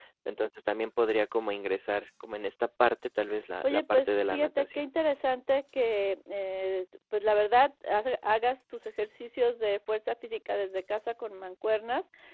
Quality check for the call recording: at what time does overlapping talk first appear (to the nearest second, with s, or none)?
4 s